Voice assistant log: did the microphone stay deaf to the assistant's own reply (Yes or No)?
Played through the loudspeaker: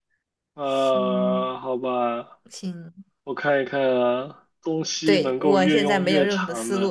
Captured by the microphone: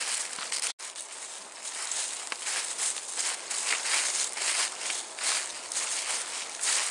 Yes